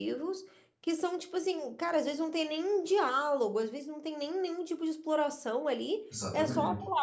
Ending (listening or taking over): listening